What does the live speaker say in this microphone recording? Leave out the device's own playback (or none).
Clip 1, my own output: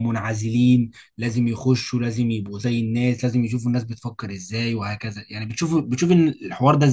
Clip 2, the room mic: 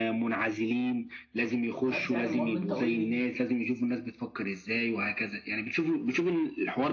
بس يعني المهم انت قول لي